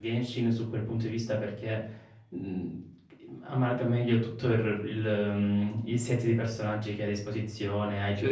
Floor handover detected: No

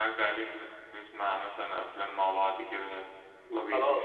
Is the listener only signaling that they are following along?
No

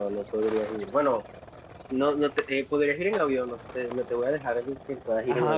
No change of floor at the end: No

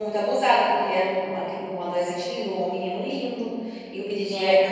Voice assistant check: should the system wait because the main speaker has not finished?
Yes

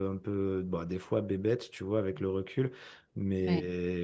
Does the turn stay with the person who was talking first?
Yes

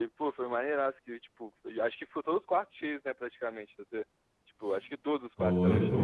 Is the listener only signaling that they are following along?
No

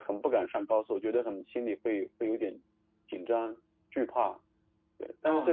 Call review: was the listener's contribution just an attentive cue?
No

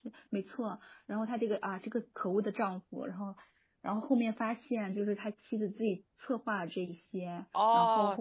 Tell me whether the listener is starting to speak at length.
Yes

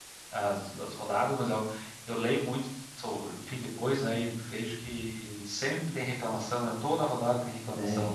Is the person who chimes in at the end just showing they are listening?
No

